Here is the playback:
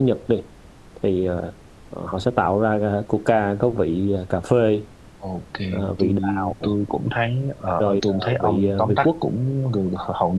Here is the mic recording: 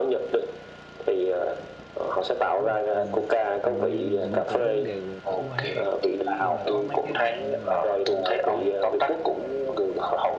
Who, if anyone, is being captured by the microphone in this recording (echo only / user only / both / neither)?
both